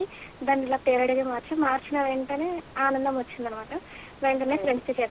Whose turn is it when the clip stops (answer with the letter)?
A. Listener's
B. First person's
B